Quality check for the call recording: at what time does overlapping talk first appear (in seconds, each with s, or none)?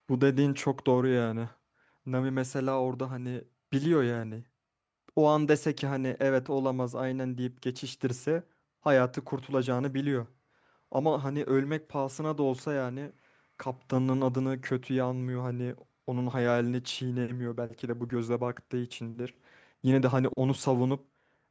none